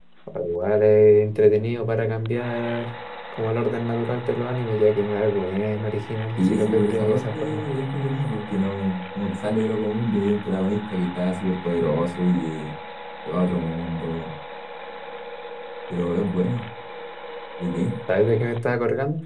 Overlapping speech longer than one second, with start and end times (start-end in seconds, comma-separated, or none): 6.4-7.7